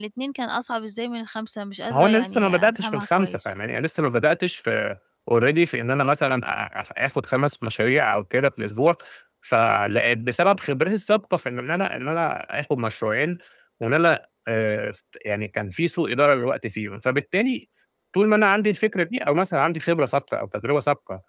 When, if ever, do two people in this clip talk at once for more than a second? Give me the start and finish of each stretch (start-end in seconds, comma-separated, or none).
1.9-3.4